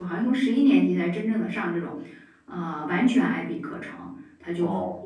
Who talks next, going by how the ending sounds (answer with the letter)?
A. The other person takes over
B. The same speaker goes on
B